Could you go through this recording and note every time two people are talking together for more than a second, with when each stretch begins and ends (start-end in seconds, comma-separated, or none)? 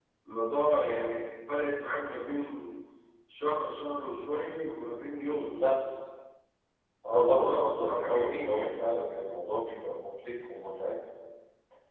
7.1-8.8